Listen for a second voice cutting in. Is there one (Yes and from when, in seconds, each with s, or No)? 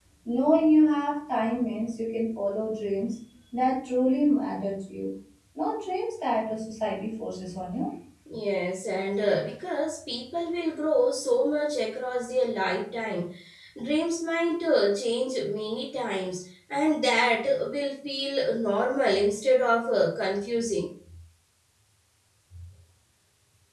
No